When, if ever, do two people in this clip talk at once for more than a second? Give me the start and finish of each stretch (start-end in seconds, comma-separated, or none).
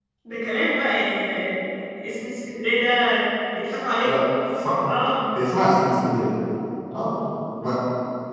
none